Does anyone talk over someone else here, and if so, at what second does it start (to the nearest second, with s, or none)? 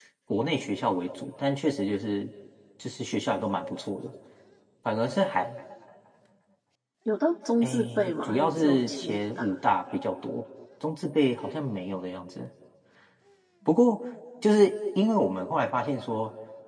8 s